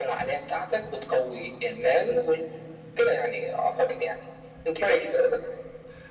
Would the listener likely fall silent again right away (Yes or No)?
No